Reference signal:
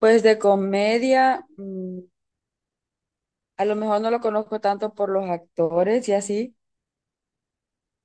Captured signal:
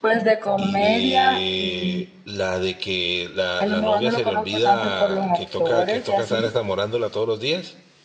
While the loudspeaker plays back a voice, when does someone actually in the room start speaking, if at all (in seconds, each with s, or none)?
0.6 s